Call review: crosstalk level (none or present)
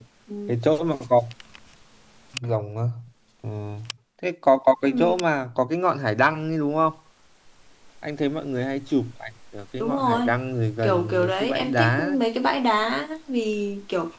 present